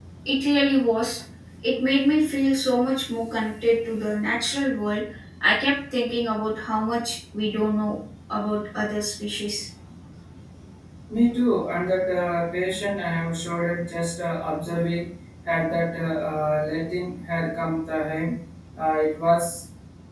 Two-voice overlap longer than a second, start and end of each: none

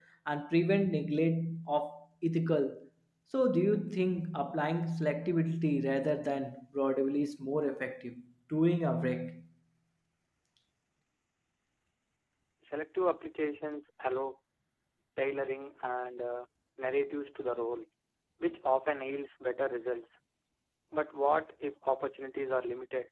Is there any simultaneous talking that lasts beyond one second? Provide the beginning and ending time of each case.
none

